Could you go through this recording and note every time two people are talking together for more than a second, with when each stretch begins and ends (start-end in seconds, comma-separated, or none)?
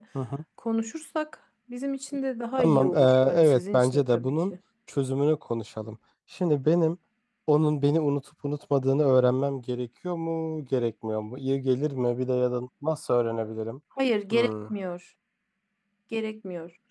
2.6-4.5